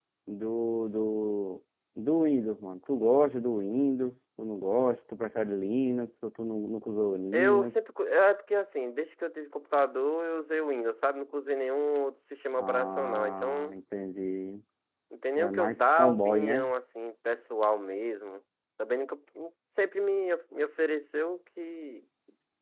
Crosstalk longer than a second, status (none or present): present